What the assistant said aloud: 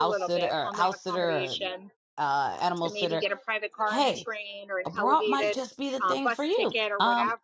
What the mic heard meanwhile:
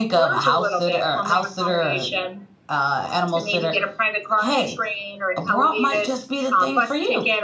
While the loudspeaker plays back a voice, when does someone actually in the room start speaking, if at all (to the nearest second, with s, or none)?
none